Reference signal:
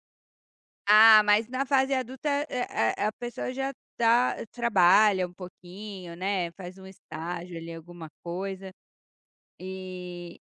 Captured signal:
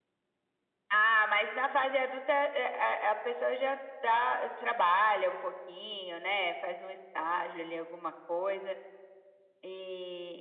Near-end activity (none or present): none